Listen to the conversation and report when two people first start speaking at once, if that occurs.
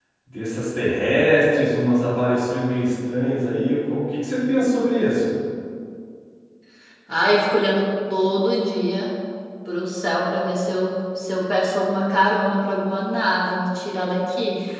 none

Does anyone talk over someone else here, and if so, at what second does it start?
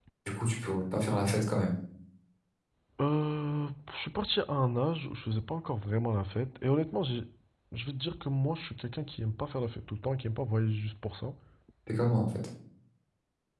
none

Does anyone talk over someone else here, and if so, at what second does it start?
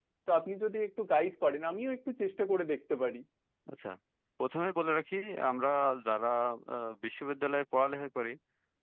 none

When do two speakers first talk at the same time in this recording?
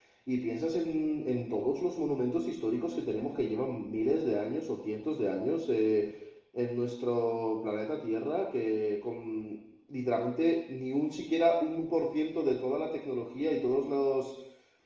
none

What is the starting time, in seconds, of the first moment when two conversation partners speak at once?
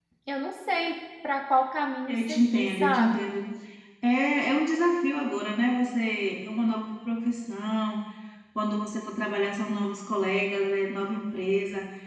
2.1 s

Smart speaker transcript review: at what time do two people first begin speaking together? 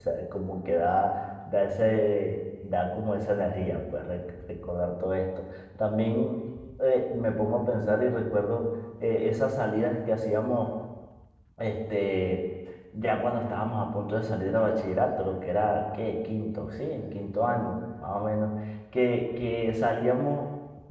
none

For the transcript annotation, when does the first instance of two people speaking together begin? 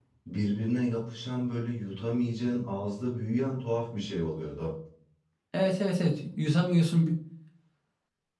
none

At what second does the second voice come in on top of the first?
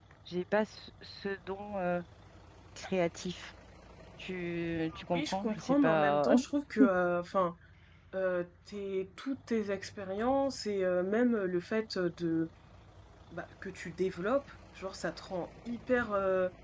4.9 s

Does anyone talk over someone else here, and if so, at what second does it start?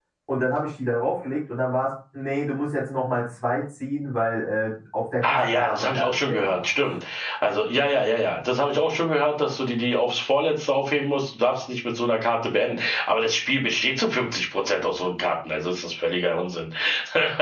5.2 s

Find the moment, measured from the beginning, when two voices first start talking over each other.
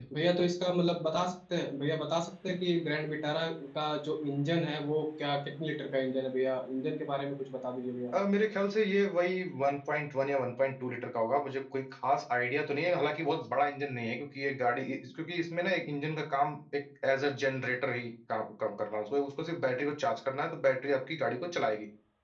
none

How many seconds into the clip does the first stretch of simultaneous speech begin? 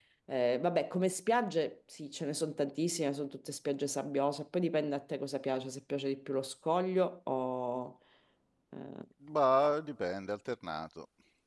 none

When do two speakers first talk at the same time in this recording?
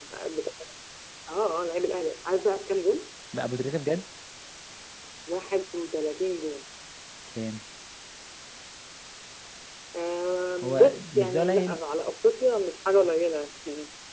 10.6 s

